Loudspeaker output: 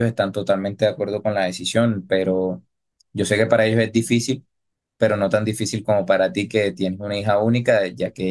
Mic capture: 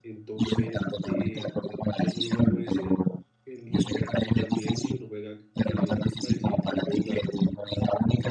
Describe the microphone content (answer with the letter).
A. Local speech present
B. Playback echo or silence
A